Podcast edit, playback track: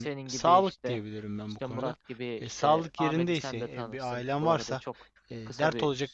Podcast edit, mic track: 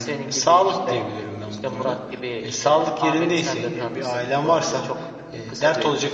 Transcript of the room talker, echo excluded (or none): none